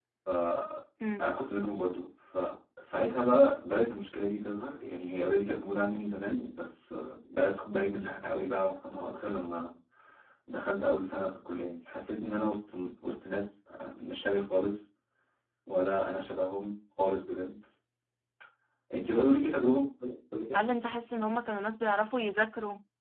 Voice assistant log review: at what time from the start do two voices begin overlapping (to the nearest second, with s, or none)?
none